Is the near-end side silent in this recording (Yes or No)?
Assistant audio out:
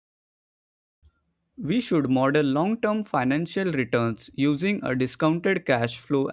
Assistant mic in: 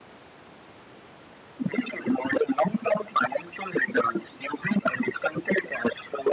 Yes